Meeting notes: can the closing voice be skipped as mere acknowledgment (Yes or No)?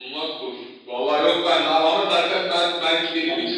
Yes